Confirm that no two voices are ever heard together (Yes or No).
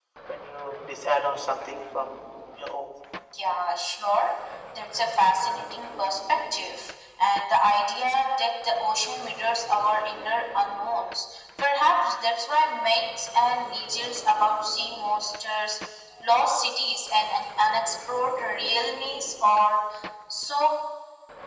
Yes